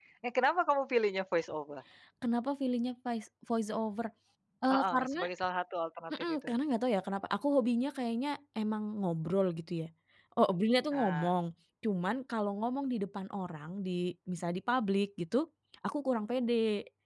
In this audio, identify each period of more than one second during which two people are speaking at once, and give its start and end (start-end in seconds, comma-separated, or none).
none